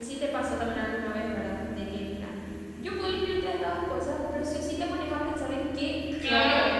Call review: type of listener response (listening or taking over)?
taking over